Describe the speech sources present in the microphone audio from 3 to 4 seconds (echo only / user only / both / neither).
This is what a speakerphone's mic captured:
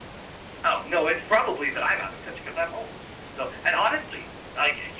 echo only